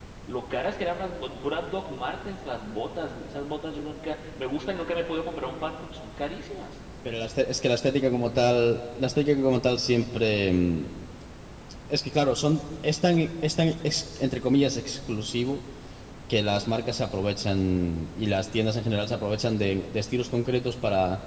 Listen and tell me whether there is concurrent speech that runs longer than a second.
No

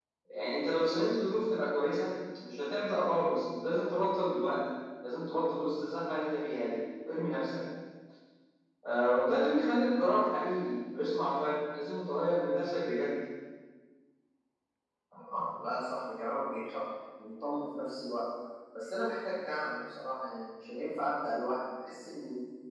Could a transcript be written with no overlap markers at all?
Yes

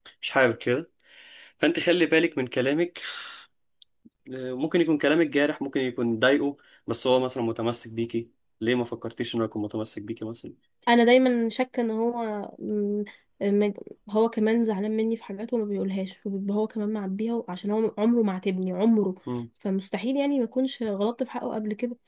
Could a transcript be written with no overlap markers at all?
Yes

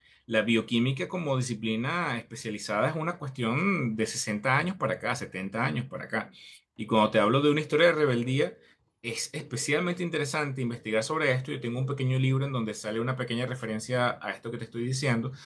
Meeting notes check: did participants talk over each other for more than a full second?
No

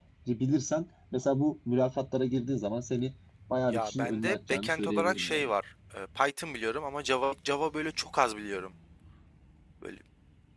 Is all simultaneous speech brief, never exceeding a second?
No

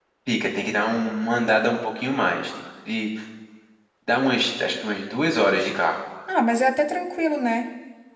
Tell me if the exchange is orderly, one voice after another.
Yes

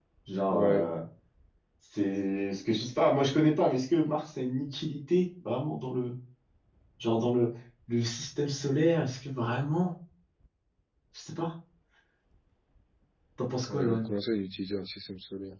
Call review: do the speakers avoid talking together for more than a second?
Yes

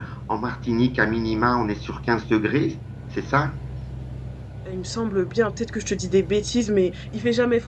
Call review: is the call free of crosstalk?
Yes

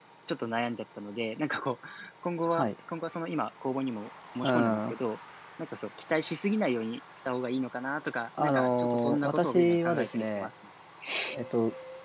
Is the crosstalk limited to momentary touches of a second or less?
No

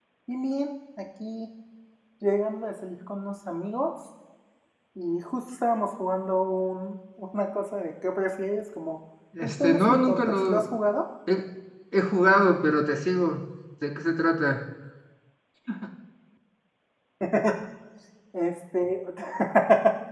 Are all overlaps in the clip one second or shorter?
No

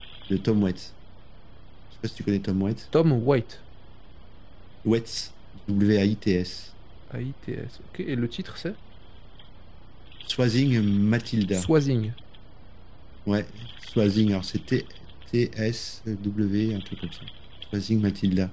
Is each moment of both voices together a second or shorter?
Yes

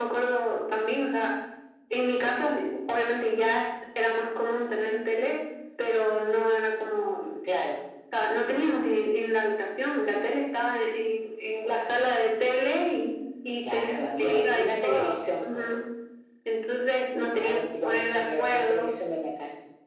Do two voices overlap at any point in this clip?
Yes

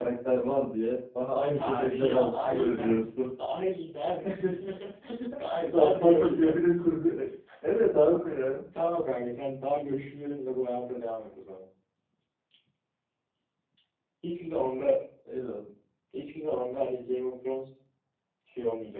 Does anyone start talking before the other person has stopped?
Yes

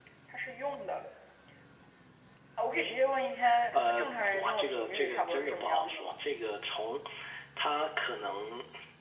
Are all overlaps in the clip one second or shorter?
No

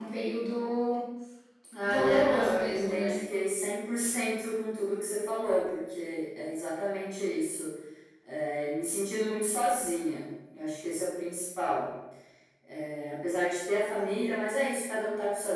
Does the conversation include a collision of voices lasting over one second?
Yes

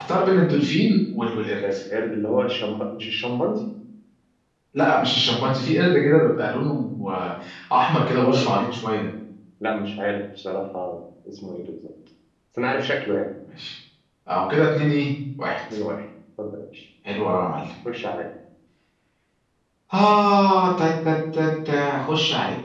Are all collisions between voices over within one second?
Yes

